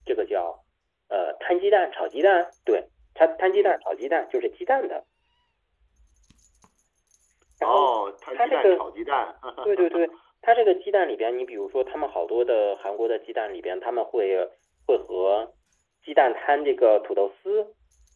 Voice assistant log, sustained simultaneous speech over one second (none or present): none